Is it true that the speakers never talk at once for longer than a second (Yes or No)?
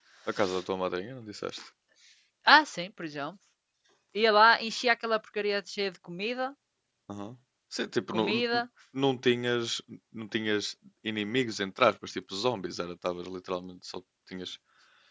Yes